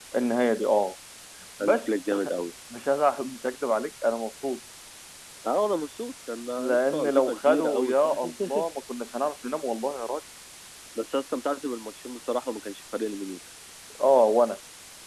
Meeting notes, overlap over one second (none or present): present